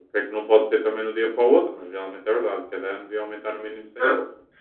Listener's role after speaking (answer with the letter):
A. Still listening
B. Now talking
B